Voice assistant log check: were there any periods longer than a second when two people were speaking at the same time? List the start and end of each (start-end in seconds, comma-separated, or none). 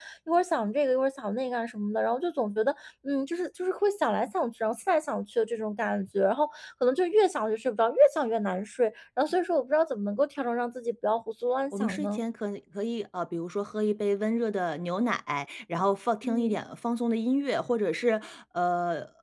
none